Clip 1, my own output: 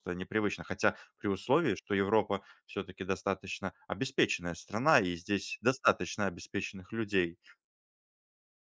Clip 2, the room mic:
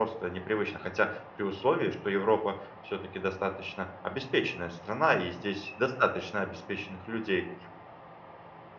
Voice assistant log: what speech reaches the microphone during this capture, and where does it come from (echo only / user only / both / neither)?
echo only